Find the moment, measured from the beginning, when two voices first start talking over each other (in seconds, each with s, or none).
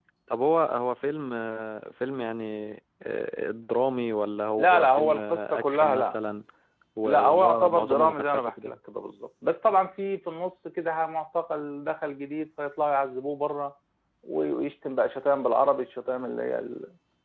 4.6 s